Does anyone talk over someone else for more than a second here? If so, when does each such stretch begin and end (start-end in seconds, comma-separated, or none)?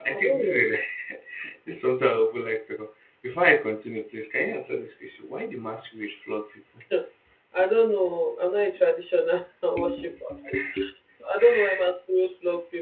none